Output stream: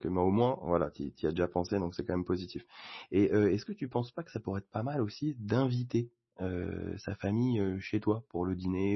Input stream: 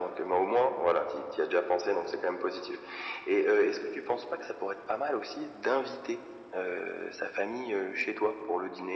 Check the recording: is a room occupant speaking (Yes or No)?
No